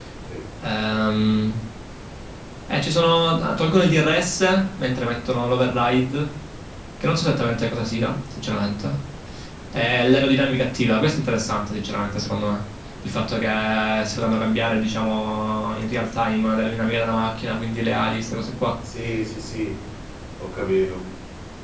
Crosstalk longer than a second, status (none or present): none